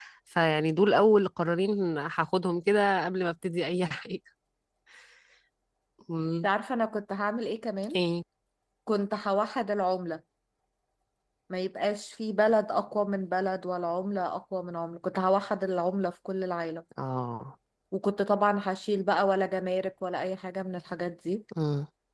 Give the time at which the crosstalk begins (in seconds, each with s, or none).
none